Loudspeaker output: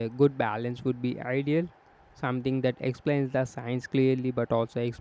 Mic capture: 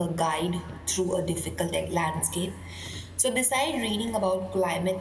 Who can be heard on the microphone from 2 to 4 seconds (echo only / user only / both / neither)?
user only